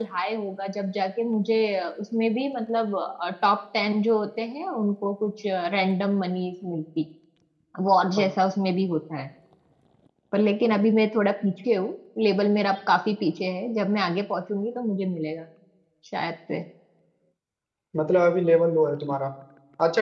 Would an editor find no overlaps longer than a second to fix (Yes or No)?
Yes